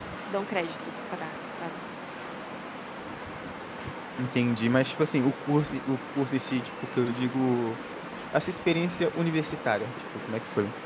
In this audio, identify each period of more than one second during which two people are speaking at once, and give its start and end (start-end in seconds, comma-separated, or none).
none